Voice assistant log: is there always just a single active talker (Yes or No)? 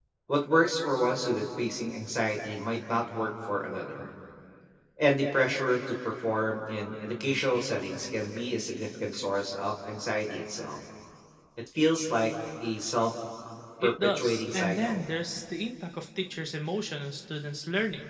No